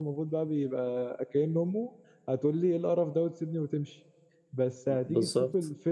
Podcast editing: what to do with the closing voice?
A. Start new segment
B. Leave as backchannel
B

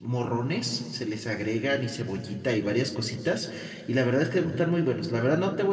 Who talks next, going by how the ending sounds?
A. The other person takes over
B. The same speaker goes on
B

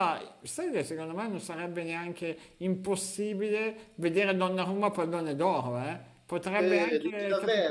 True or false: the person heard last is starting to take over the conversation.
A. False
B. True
B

